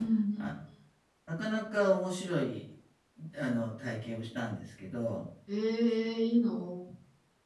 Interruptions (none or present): none